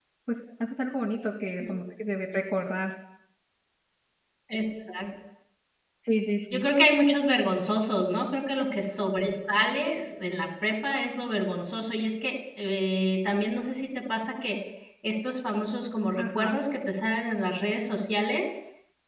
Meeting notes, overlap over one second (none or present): none